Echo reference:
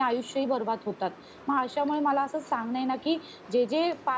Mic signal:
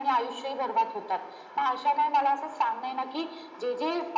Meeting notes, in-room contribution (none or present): none